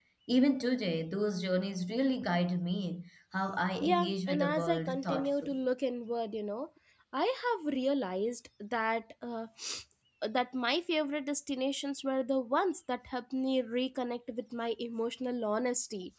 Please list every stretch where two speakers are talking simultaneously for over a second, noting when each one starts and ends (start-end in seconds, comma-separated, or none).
3.8-5.6